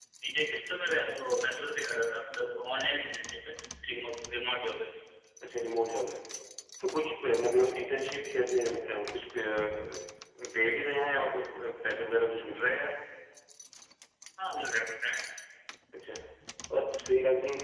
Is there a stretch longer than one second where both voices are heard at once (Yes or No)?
No